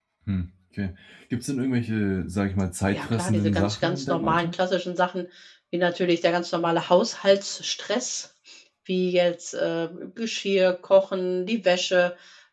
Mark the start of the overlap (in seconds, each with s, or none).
2.9 s